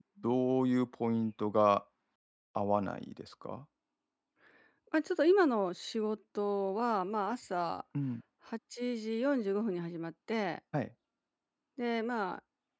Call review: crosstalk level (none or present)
none